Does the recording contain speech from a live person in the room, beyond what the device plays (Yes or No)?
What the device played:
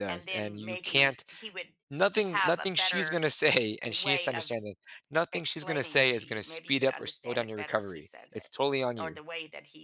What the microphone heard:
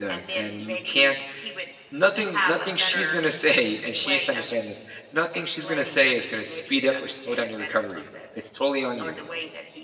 No